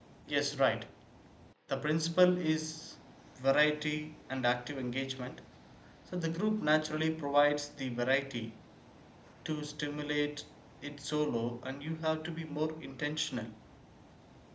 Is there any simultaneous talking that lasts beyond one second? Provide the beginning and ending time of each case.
none

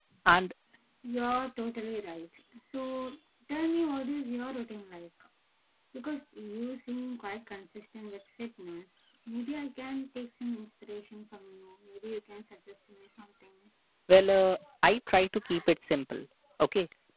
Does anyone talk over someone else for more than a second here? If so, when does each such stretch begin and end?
none

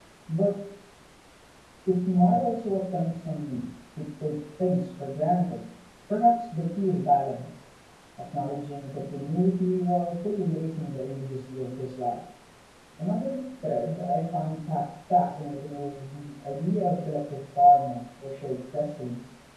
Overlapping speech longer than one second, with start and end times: none

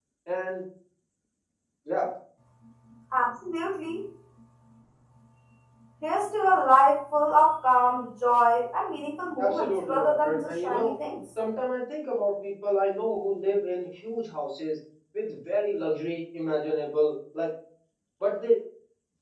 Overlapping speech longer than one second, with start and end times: 9.4-10.9

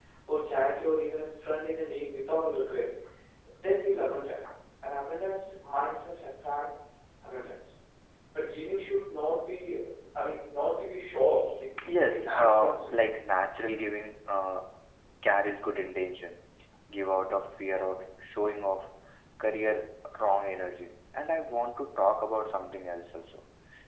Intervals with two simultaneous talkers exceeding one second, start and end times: 11.8-13.1

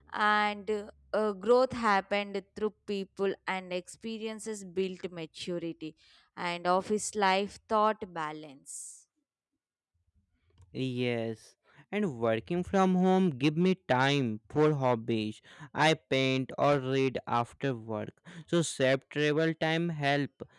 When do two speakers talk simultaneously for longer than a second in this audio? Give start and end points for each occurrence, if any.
none

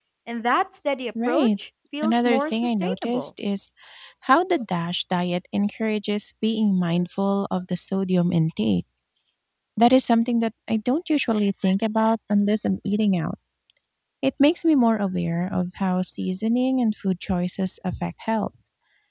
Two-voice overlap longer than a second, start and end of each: 2.0-3.3

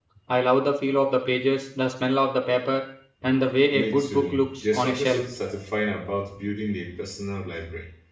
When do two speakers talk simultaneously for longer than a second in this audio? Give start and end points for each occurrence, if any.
3.7-5.2

